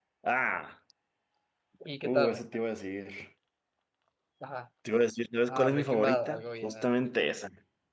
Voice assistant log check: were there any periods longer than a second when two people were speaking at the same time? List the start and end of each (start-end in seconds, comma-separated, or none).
5.5-6.9